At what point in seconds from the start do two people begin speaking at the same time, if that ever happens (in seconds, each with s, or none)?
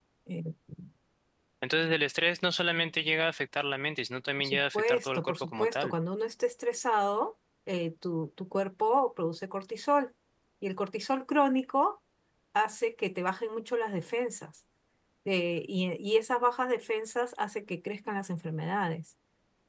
4.4 s